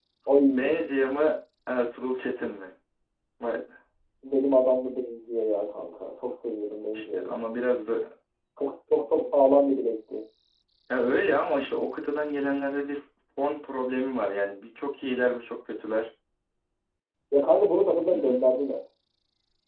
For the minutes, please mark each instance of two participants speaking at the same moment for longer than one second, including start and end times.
none

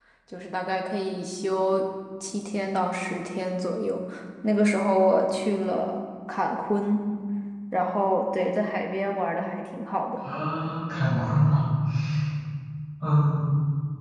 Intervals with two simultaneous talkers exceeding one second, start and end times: none

